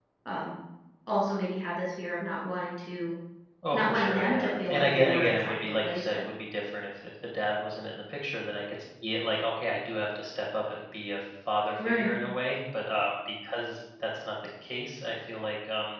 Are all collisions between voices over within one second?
No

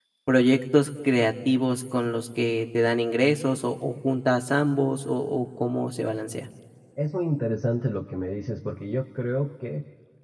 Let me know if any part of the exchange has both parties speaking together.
No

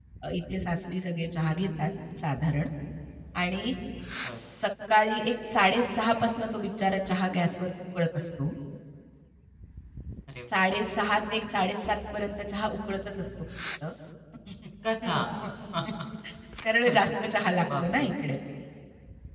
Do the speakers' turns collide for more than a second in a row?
No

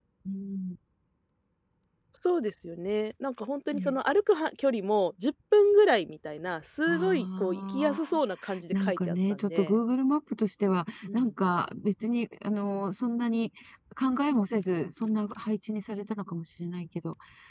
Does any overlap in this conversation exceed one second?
Yes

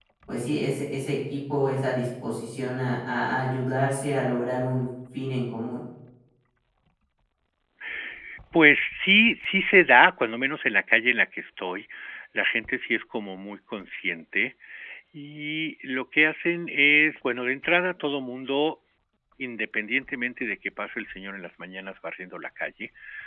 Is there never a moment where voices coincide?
Yes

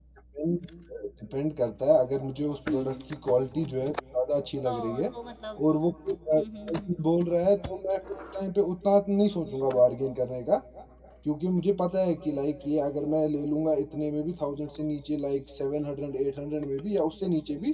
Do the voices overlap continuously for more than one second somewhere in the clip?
No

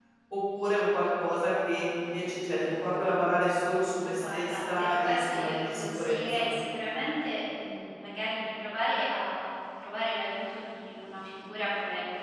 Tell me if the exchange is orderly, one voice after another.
No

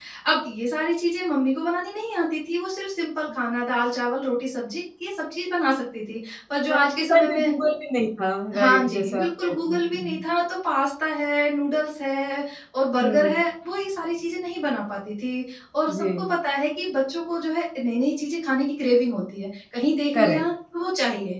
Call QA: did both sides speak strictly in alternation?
No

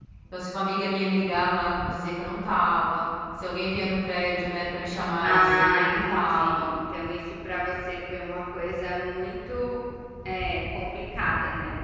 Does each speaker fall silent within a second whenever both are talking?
No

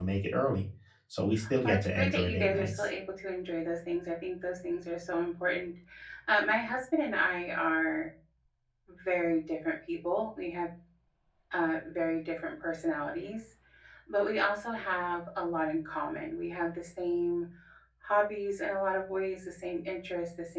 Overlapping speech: Yes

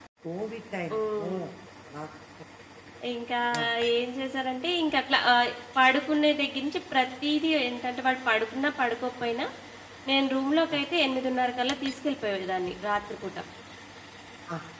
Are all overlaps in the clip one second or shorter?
Yes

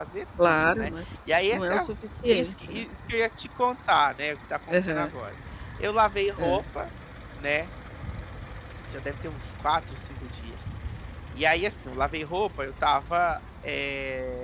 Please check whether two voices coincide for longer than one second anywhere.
No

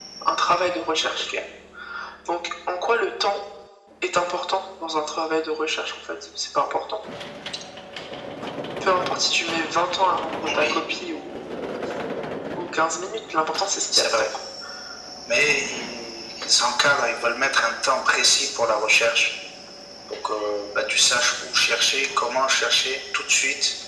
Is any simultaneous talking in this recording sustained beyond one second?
No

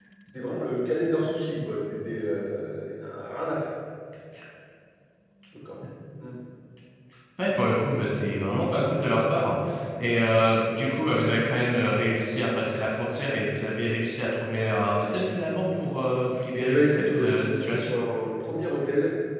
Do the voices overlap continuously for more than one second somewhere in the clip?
Yes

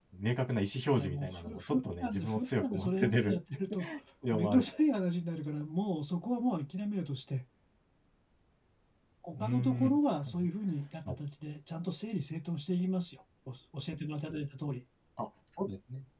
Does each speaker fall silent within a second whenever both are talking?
No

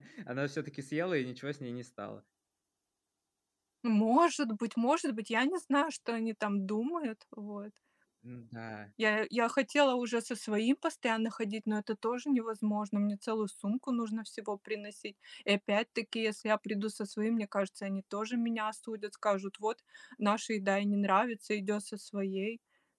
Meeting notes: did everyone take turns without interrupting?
Yes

